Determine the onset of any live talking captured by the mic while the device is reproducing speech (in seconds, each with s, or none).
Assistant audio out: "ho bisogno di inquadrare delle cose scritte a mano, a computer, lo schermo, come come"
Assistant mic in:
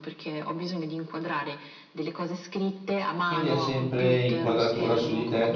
3.2 s